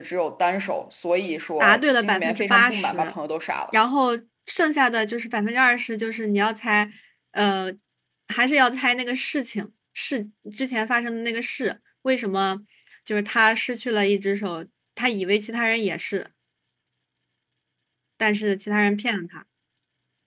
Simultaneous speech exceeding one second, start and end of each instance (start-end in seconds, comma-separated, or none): 1.6-3.1